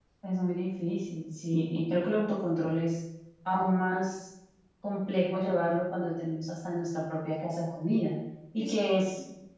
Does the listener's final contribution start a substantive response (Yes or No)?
No